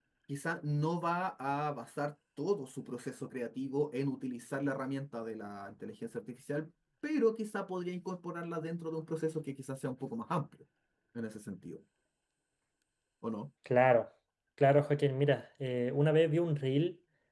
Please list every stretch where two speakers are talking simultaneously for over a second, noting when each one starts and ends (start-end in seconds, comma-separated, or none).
none